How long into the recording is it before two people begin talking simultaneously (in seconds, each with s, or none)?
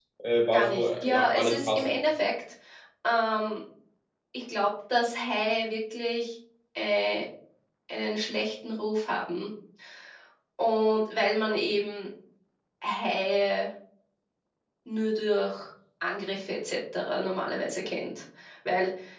0.5 s